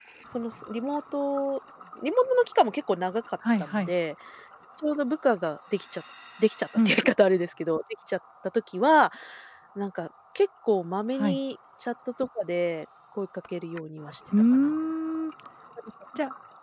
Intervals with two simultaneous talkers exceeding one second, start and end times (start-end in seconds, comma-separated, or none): none